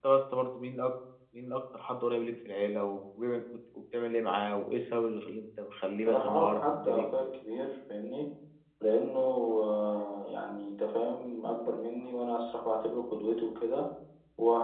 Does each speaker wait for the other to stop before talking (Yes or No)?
No